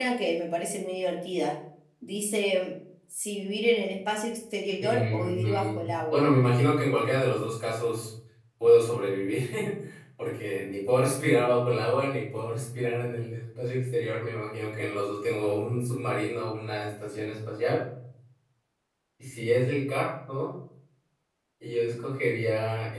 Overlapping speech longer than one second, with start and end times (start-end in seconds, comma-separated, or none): 4.8-6.3